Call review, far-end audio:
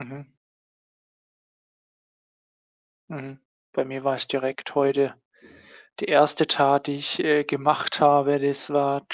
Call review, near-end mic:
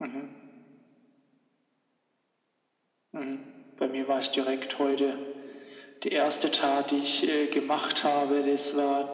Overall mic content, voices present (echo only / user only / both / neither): echo only